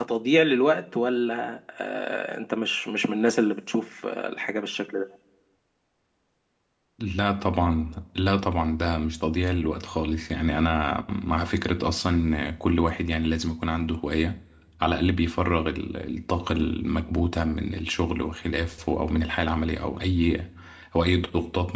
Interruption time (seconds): none

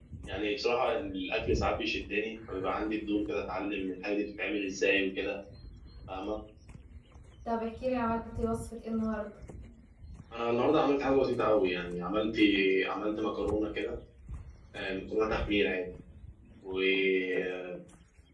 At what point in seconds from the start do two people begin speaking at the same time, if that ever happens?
none

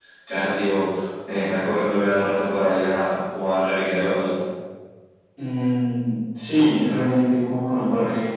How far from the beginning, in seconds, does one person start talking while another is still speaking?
none

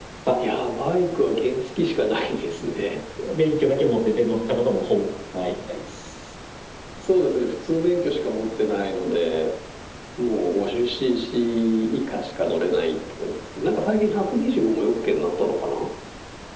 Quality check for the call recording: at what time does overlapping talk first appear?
none

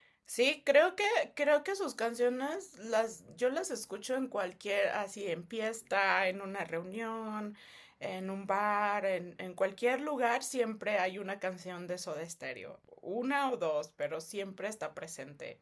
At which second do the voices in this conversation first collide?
none

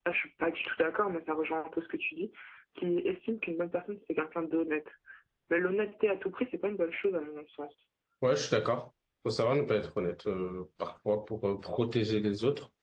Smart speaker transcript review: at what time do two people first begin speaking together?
none

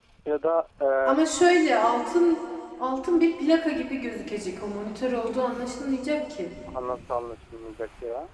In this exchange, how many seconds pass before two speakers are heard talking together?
none

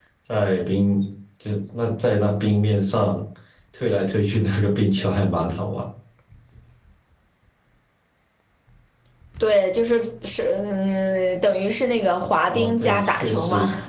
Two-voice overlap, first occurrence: 12.5 s

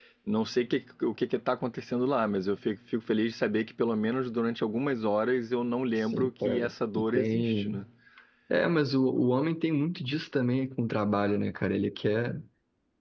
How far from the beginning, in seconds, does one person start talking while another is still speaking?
6.0 s

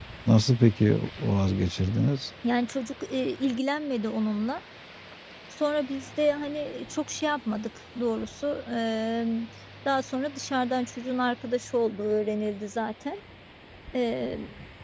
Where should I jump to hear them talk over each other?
none

